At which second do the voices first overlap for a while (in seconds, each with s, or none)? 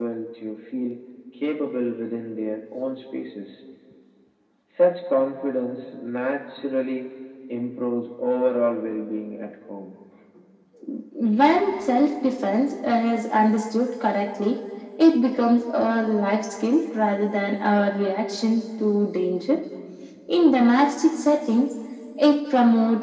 none